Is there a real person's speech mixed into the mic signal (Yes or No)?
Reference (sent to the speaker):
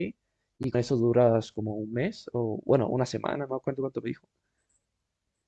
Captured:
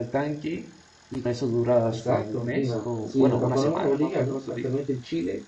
Yes